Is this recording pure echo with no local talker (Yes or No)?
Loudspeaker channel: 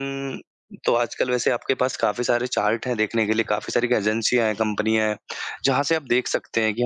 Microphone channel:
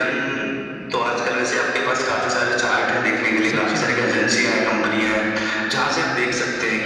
No